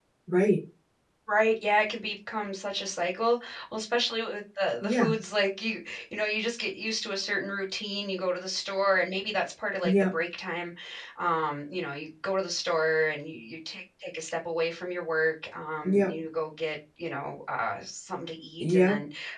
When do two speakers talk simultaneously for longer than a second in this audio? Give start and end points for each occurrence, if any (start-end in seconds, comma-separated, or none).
none